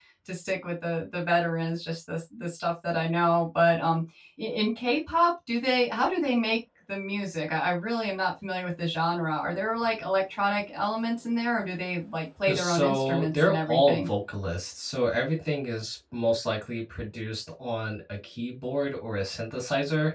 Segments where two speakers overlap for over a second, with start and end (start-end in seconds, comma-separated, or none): 12.4-14.1